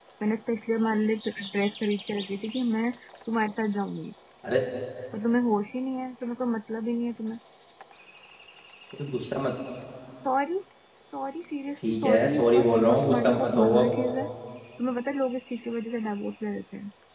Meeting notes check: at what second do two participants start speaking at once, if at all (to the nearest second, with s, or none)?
12 s